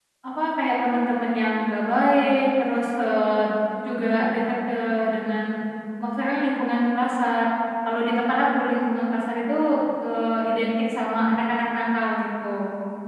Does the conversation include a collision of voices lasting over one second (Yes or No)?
No